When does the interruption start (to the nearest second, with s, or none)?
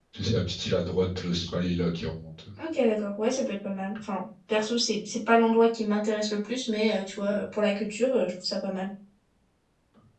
none